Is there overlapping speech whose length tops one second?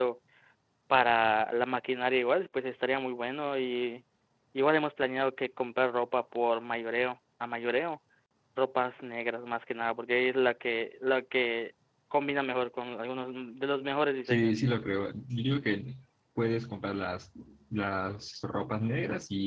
No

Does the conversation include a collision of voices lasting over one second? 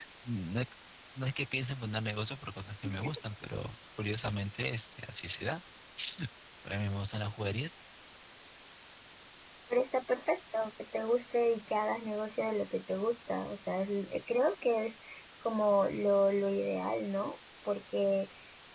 No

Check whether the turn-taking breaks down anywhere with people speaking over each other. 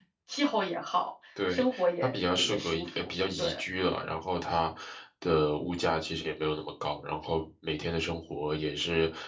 Yes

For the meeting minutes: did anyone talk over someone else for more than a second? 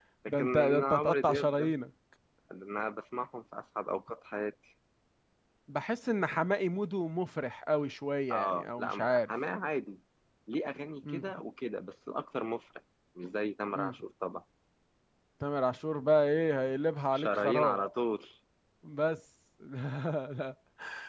Yes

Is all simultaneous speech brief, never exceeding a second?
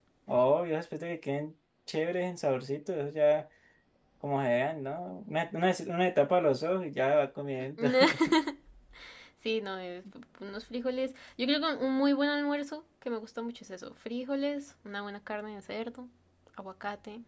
Yes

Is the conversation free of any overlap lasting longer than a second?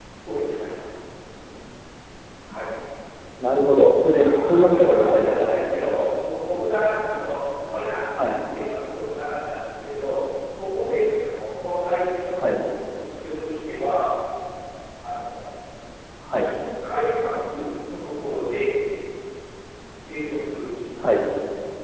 No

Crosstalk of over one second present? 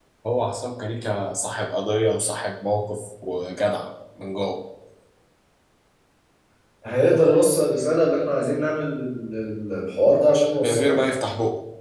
No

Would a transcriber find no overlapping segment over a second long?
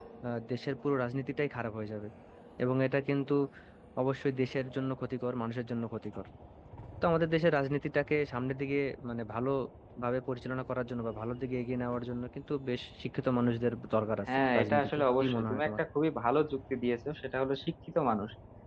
No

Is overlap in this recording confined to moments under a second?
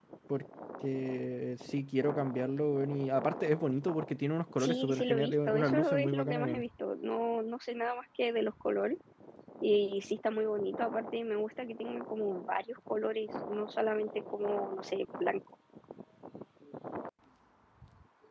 No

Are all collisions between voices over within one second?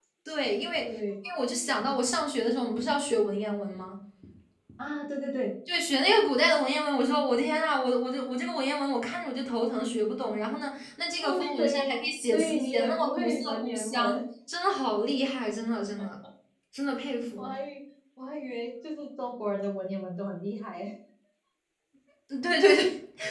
No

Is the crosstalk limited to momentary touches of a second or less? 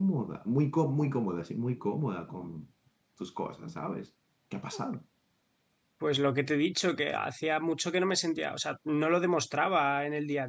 Yes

